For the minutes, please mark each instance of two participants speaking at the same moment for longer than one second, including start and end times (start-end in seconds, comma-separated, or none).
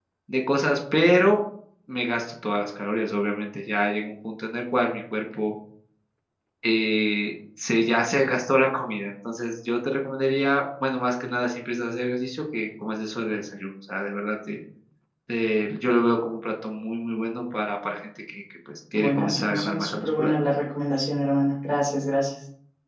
18.9-20.3